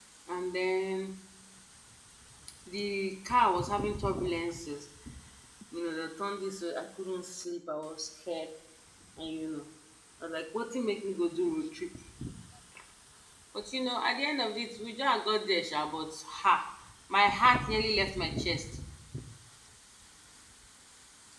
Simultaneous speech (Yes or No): No